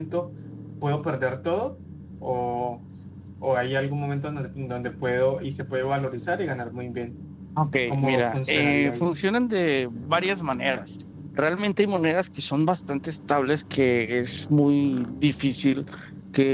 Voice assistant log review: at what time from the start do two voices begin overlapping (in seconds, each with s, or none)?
7.9 s